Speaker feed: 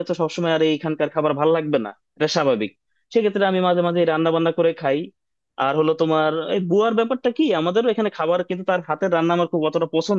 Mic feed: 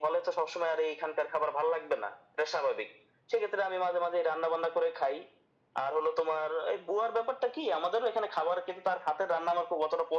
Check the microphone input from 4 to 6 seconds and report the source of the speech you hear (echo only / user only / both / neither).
echo only